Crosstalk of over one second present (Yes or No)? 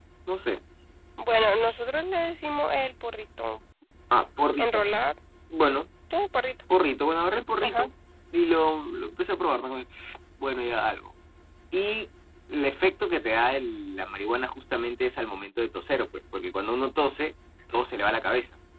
No